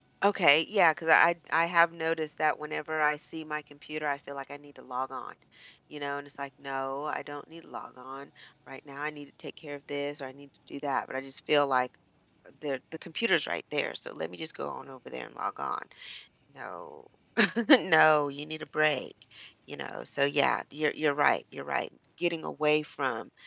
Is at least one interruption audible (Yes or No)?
No